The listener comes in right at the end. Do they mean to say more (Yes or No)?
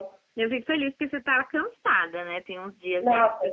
Yes